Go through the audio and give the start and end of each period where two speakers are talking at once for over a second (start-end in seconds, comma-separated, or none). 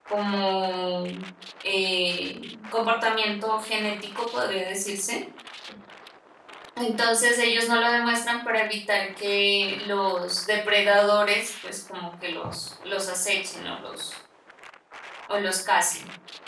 none